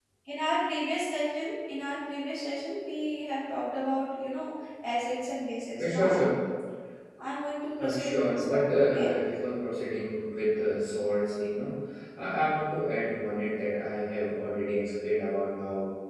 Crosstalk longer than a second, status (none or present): present